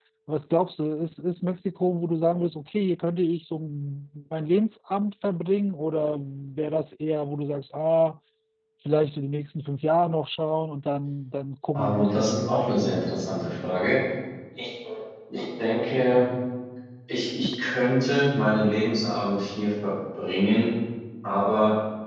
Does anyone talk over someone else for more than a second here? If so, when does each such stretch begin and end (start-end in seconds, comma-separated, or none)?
11.7-13.1